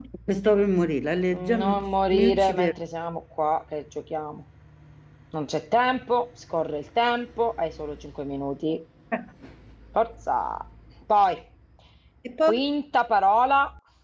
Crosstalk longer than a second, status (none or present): present